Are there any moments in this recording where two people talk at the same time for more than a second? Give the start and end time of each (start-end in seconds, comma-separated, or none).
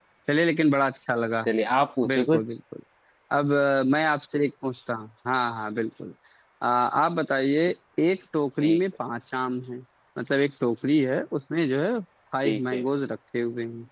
none